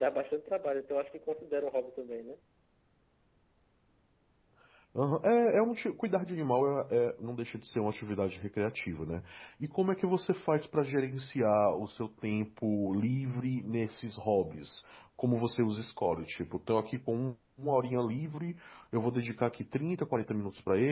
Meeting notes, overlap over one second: none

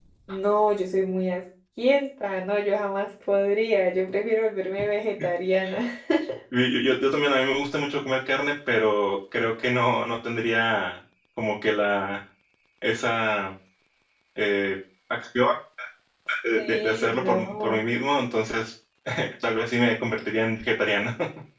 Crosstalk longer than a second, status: present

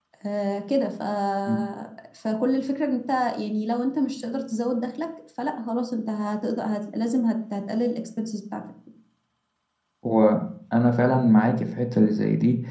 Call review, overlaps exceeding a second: none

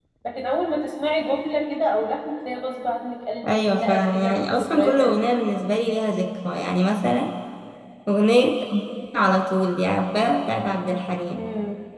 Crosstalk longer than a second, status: present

